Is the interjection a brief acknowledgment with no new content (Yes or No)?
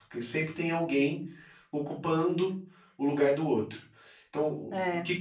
Yes